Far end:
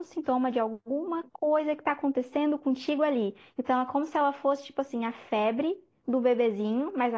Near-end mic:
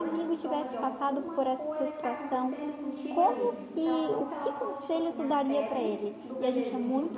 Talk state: both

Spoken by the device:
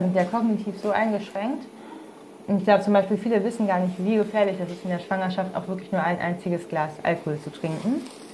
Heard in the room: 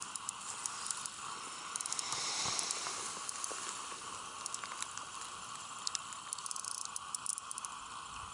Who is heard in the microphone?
neither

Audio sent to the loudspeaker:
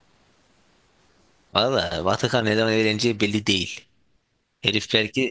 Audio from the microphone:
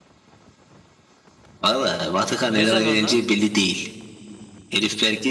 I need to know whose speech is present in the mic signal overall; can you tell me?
both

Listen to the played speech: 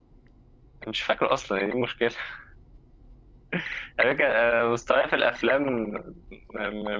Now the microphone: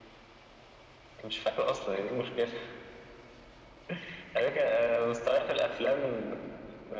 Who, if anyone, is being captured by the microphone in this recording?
echo only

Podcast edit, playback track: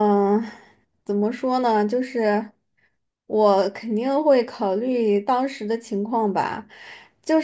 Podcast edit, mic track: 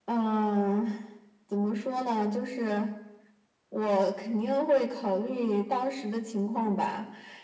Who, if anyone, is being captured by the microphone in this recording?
echo only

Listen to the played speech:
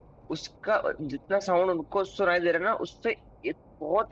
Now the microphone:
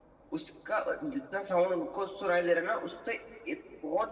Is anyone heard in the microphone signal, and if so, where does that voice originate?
echo only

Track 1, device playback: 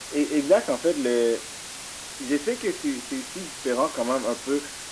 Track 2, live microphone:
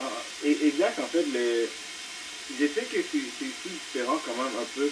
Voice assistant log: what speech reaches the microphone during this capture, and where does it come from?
echo only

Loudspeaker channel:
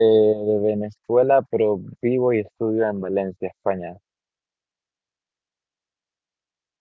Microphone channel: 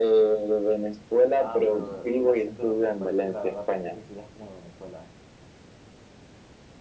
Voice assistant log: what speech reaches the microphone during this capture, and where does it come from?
both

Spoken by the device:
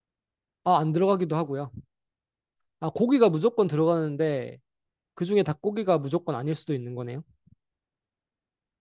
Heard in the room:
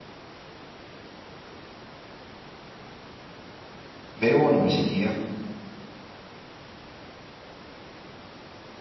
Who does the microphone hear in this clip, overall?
user only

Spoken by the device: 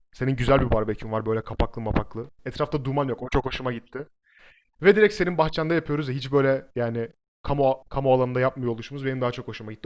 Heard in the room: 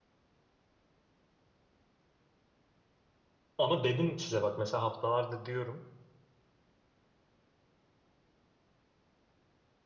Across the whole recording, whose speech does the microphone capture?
user only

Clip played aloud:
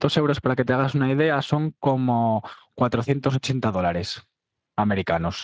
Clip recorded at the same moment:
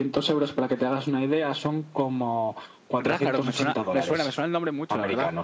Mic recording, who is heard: both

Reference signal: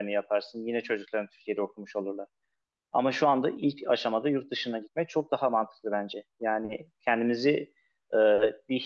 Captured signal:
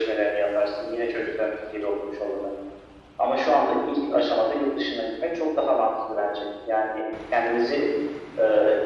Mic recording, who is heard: echo only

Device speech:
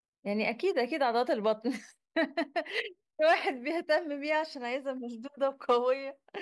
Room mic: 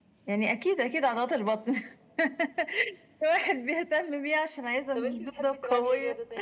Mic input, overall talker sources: both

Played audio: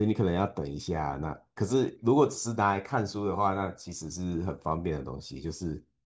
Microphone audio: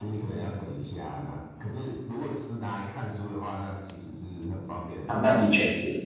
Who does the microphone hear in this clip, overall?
both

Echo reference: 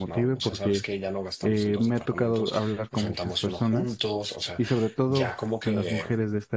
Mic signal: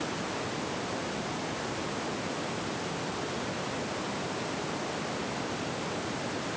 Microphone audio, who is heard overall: neither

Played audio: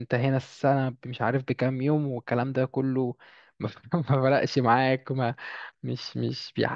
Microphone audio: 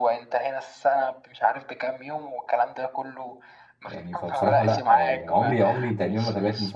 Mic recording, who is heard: both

